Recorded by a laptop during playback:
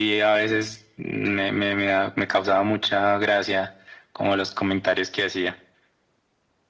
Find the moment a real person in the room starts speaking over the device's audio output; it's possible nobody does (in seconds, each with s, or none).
none